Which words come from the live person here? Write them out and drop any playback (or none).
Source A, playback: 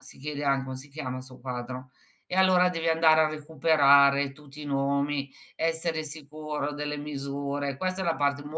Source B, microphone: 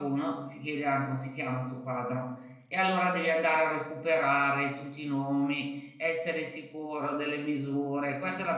none